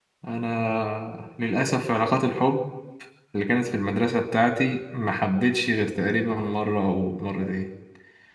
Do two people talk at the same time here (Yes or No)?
No